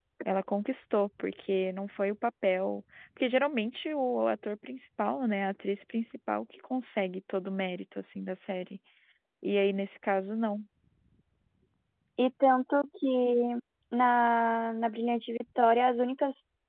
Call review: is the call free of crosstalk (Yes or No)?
Yes